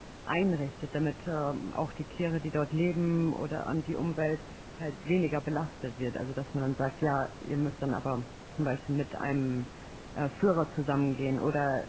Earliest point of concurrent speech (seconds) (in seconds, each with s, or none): none